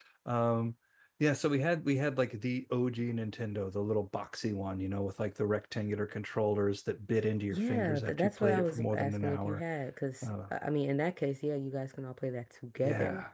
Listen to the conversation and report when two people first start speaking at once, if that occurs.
7.5 s

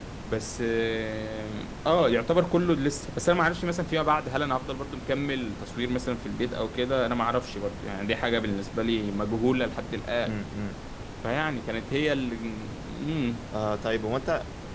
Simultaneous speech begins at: none

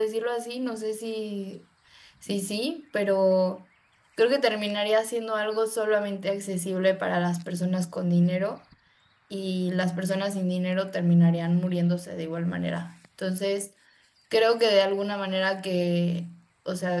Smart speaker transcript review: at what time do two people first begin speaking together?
none

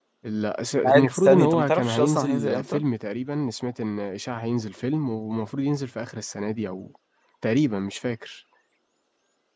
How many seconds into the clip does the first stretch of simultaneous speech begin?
0.8 s

